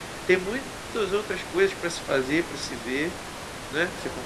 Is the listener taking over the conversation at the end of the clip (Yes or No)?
Yes